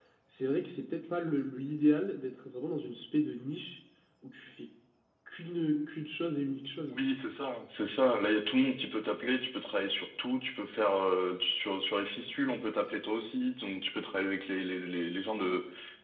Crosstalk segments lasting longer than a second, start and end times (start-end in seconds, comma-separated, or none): none